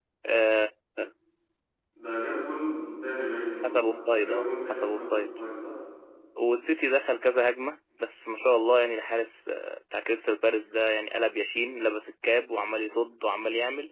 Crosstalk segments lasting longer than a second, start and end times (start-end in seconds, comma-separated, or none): 3.6-5.2